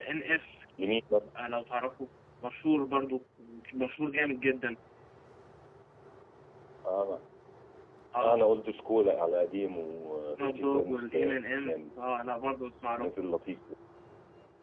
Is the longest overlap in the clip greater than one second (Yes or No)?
Yes